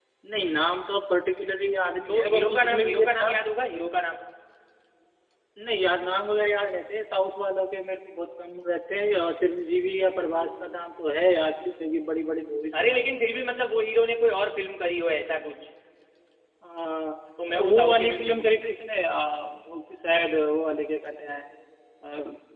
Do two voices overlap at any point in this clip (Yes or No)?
Yes